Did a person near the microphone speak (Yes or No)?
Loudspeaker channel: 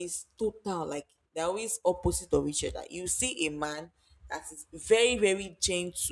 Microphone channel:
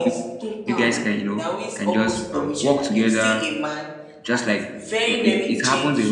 Yes